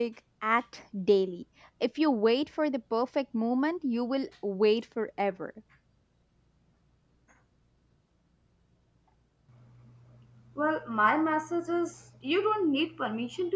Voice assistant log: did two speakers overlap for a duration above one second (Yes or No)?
No